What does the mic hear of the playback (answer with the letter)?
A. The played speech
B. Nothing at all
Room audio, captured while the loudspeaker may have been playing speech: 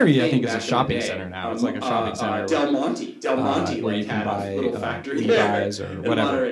A